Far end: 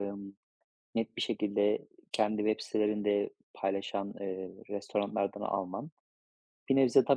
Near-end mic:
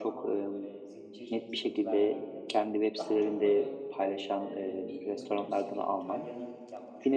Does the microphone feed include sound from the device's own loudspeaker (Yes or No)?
Yes